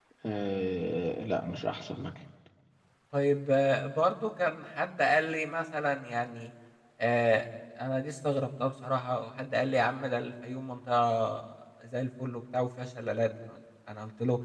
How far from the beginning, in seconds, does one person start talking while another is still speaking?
none

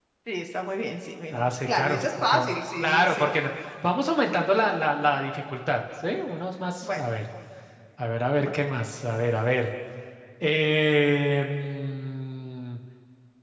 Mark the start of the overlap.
1.3 s

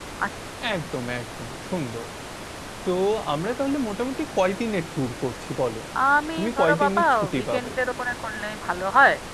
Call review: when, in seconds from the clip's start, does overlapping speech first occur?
6.4 s

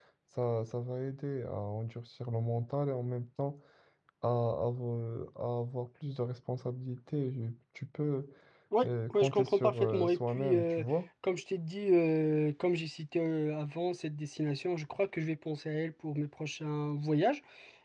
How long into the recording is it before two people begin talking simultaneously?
8.8 s

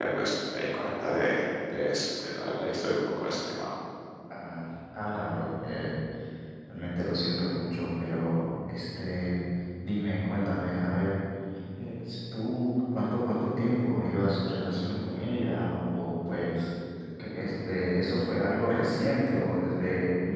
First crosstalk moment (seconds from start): none

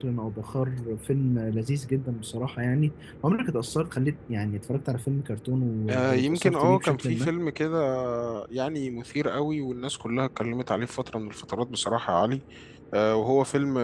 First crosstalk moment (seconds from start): 5.9 s

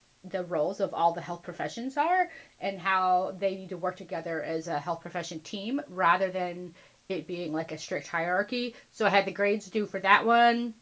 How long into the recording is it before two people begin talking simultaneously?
none

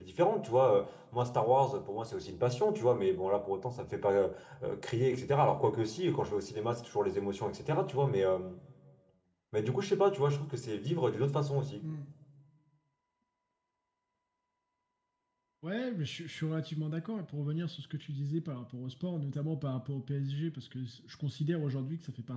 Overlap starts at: none

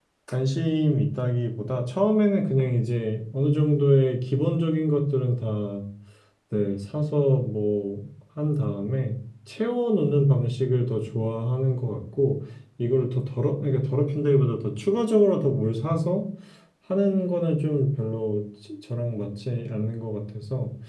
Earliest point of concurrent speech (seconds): none

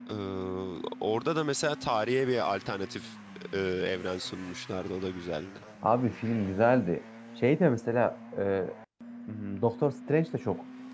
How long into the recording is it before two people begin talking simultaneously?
none

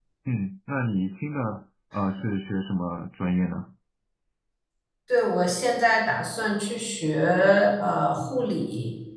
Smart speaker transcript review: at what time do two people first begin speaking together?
none

